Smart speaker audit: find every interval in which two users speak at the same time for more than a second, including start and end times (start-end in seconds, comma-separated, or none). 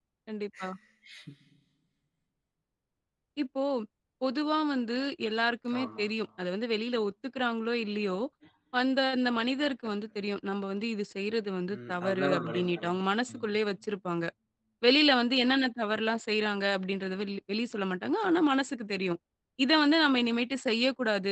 11.7-13.0